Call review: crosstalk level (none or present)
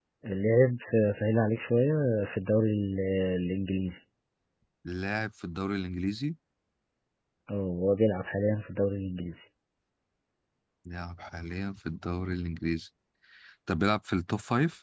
none